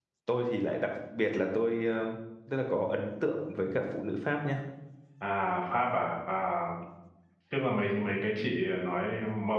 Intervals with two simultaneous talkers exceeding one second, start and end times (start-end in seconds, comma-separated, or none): none